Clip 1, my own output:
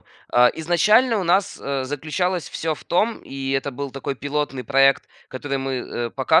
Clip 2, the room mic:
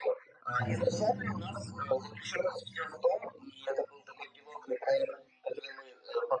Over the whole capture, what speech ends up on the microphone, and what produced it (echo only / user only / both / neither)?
both